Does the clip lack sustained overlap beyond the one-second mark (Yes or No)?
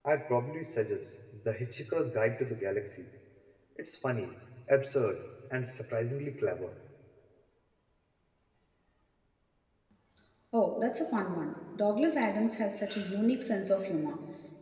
Yes